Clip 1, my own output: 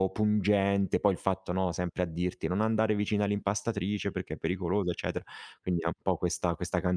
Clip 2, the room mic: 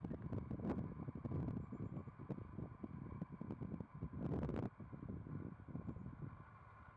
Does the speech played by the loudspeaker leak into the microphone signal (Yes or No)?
No